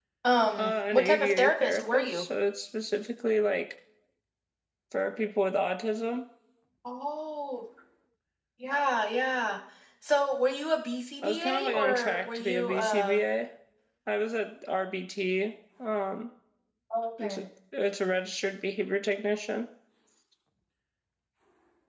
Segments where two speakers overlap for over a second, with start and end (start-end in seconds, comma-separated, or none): 0.6-2.3, 11.2-13.2